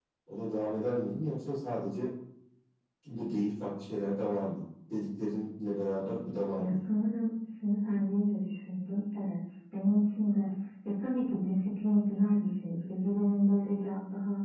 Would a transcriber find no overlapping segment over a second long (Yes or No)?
Yes